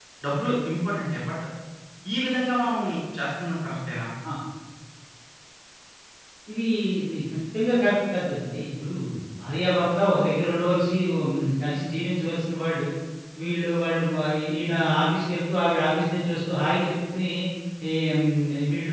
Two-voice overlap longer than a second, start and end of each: none

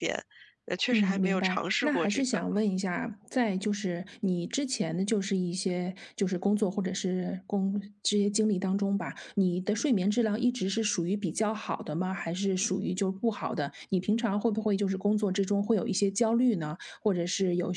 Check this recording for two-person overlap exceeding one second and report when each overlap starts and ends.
0.9-2.2

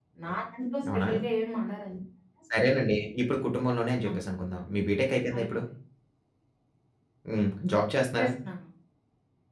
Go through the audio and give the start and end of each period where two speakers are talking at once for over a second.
none

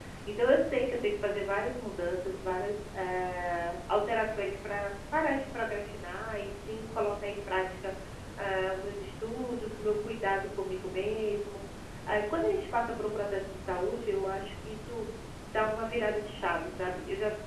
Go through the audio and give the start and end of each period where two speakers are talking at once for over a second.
none

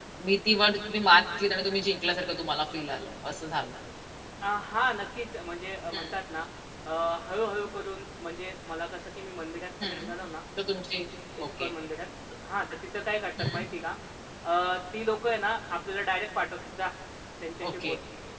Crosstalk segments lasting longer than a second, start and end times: none

